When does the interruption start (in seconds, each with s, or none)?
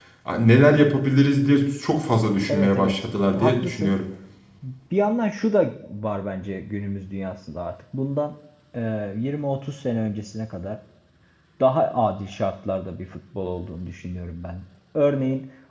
2.5 s